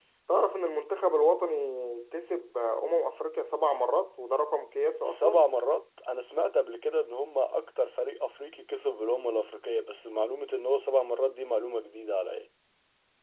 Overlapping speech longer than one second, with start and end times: none

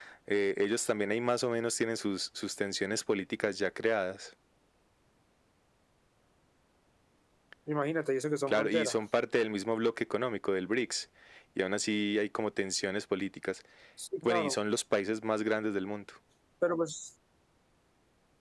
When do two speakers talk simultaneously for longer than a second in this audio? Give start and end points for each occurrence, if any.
none

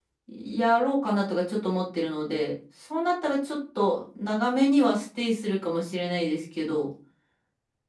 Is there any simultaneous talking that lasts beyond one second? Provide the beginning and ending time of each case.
none

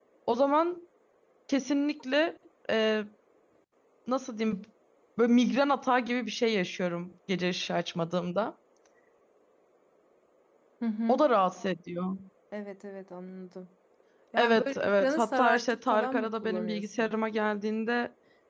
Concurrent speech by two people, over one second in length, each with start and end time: 14.4-17.1

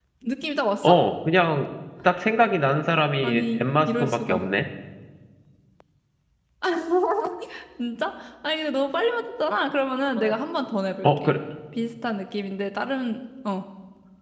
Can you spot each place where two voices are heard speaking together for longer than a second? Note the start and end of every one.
3.2-4.4

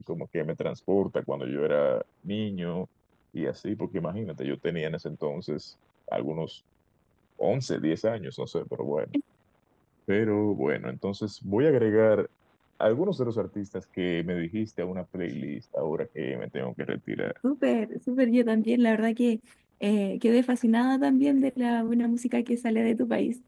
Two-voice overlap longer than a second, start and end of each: none

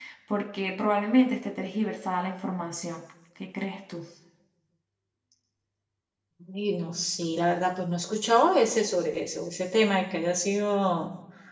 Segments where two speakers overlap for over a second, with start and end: none

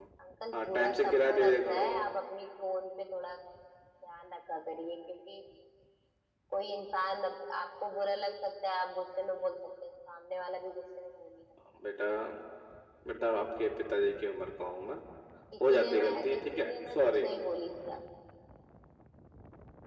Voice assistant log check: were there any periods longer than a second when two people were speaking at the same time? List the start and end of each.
0.5-2.0, 15.7-17.3

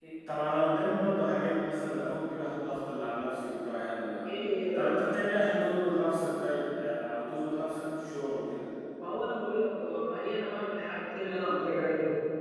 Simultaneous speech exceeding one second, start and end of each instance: none

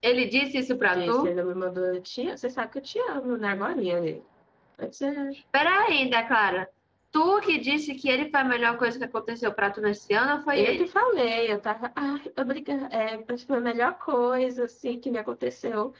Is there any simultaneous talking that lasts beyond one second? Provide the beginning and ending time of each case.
none

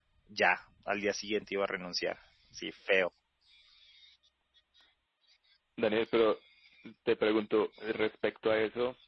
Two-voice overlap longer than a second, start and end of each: none

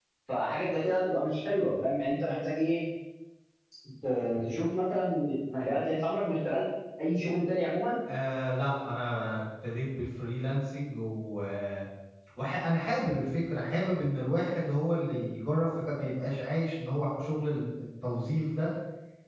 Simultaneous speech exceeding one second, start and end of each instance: none

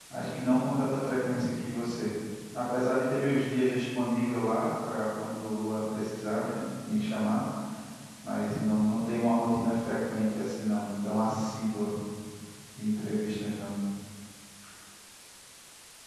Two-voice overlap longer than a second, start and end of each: none

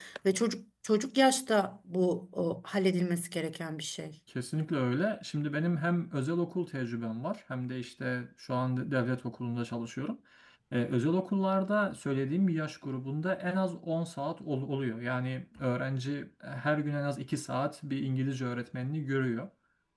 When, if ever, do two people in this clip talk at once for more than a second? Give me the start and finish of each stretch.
none

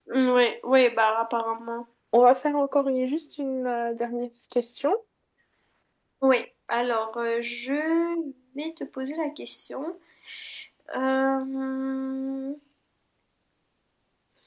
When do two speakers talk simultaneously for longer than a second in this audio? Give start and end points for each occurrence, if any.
none

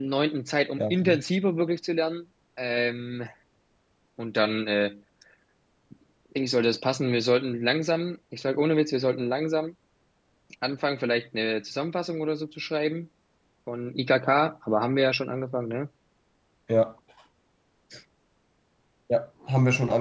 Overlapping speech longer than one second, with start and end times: none

